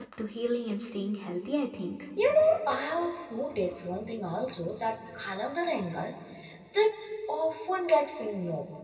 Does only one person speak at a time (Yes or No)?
Yes